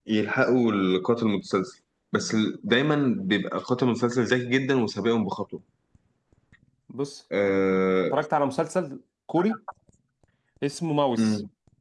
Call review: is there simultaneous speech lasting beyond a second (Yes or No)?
No